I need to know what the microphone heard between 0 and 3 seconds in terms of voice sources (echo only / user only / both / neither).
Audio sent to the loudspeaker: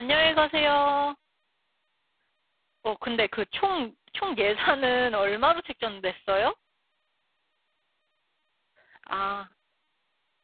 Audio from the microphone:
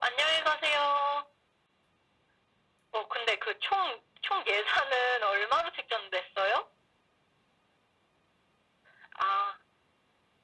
echo only